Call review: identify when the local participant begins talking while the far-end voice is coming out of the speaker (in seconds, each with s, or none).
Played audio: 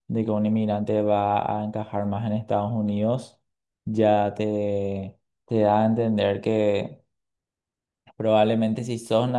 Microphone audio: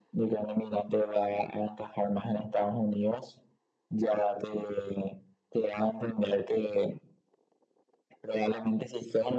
none